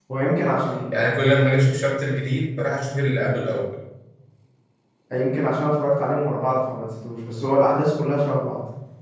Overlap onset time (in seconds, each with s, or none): none